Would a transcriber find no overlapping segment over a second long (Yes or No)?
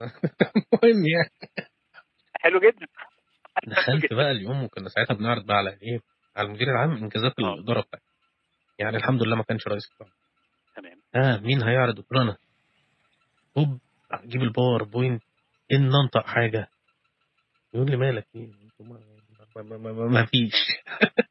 Yes